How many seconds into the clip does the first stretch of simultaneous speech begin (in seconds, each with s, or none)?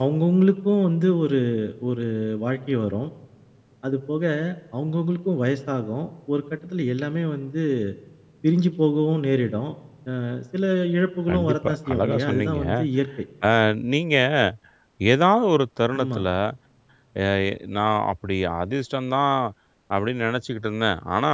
11.3 s